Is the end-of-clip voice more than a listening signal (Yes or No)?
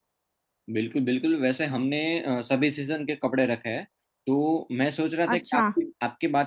No